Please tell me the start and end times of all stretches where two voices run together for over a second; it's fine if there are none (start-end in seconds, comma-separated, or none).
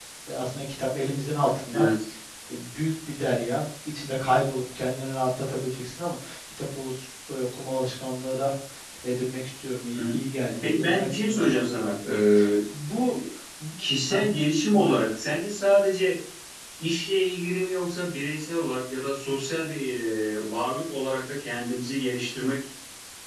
10.6-11.9